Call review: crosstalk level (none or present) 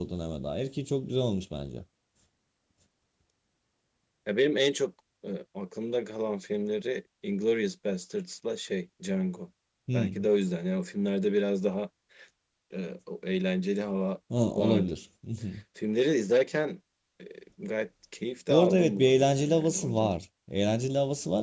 present